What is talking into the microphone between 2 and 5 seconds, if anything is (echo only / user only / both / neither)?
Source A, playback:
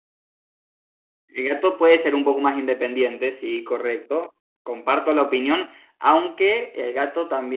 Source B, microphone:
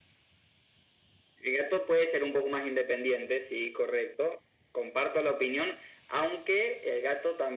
echo only